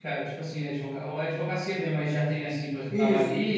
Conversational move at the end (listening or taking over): taking over